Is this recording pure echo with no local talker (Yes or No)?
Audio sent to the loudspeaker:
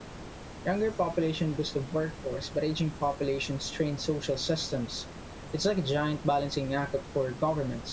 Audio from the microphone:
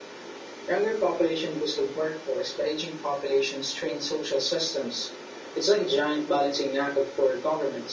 Yes